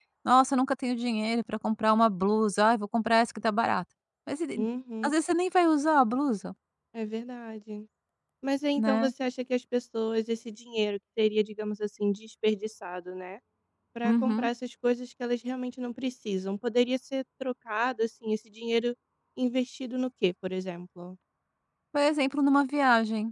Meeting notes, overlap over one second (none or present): none